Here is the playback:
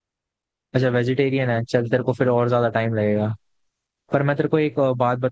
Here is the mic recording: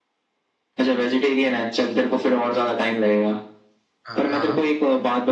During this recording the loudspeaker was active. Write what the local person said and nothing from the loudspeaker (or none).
हाँ हाँ